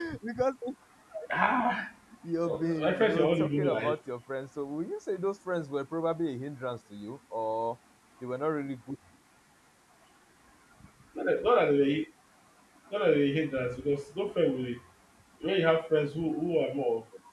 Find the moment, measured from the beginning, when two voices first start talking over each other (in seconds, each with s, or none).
2.4 s